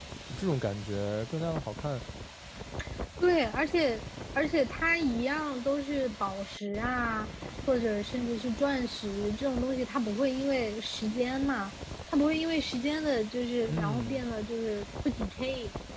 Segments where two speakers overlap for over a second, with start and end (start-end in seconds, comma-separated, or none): none